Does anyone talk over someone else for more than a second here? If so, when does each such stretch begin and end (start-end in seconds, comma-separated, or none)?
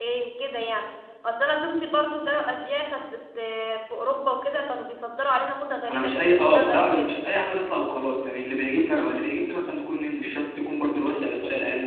5.9-7.1